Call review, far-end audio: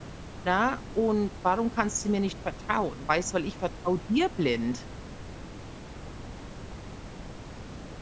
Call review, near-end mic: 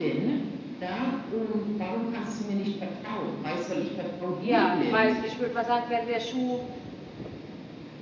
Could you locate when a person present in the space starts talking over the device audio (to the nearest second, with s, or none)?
4 s